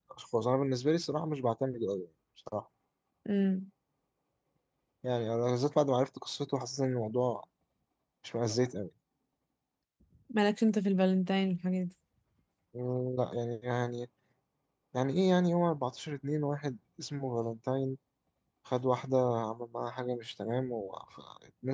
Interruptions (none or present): none